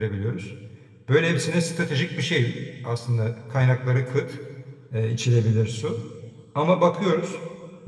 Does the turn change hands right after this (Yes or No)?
No